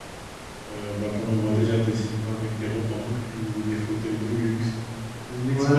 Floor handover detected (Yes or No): Yes